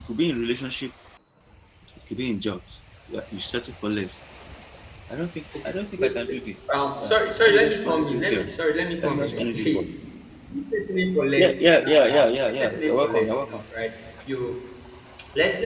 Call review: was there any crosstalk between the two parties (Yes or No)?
Yes